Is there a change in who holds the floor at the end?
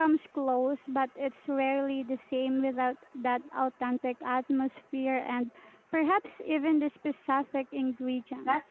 Yes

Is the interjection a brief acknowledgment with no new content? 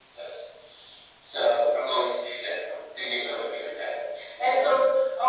Yes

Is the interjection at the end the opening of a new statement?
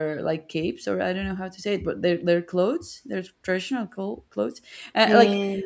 No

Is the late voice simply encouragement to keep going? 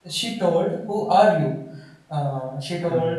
Yes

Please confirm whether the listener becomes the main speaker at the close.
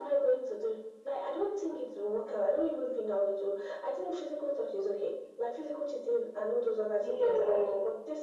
No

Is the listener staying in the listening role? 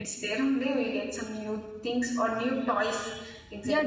No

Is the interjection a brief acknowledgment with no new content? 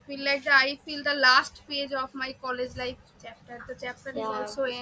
No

